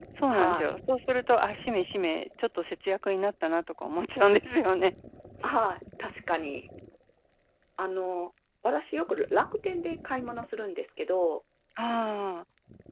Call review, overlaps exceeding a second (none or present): none